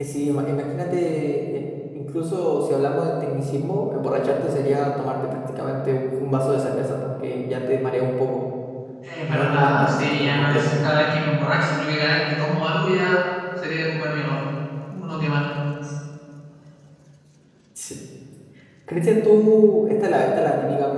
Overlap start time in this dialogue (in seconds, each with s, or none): 9.3 s